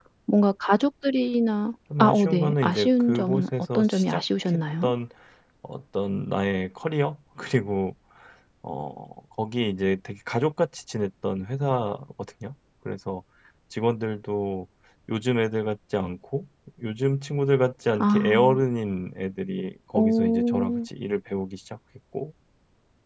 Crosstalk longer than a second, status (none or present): present